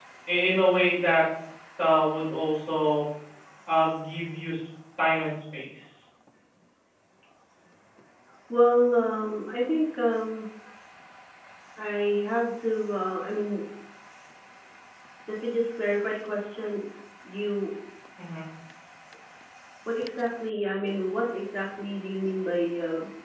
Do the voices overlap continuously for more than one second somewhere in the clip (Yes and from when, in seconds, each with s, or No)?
No